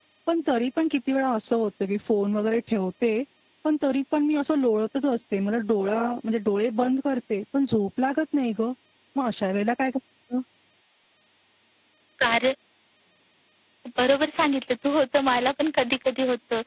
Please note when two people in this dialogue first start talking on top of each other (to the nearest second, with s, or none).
none